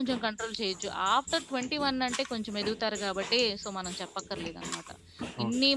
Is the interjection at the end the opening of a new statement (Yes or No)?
No